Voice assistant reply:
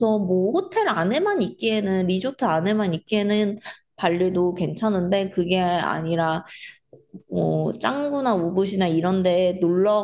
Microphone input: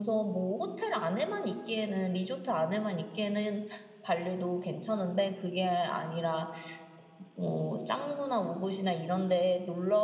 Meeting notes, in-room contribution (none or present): none